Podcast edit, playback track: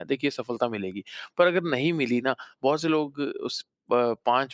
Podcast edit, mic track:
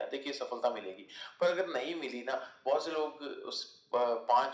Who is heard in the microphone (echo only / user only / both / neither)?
echo only